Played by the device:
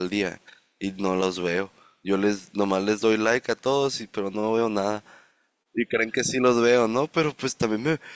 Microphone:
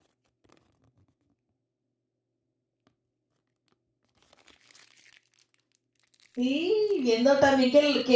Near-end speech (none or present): present